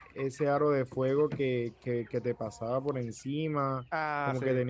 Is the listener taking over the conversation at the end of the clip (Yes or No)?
No